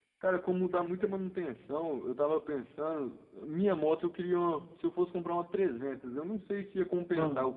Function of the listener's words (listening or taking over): listening